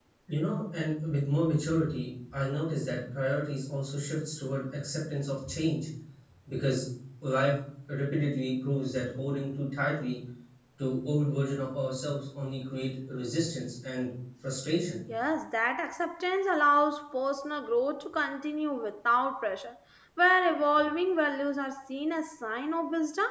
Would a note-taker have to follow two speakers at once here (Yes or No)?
No